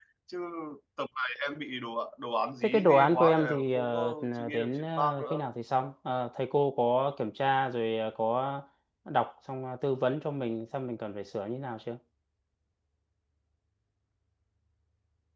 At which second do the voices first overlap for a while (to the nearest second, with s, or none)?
3 s